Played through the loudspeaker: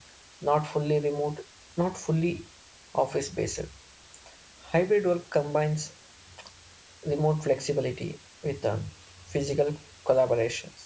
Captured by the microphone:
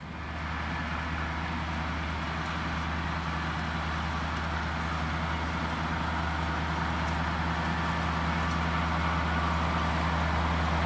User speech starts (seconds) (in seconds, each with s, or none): none